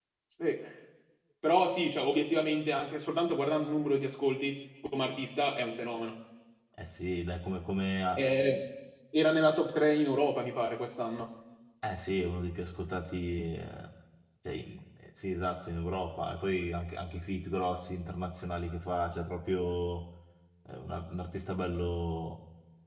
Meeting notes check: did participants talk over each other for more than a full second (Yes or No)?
No